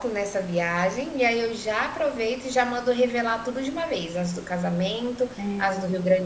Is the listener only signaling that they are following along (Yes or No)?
Yes